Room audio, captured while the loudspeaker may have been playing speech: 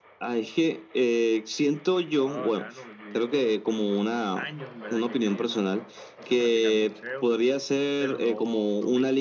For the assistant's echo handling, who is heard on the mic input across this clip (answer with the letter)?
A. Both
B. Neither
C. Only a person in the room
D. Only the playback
A